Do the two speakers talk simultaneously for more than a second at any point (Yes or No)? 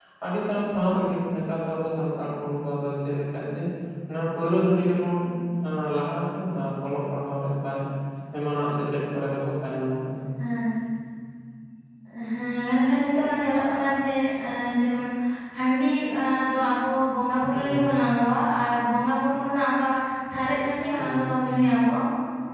No